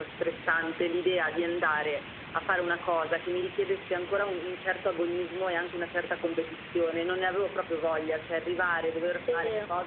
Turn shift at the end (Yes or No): No